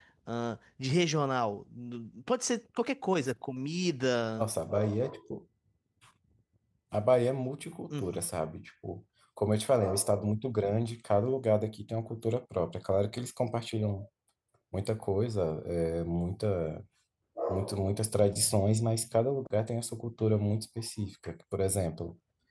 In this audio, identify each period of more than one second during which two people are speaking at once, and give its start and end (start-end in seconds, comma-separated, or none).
none